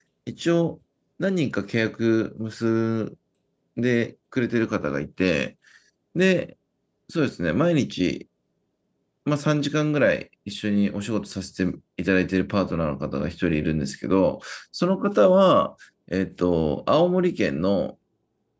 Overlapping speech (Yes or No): No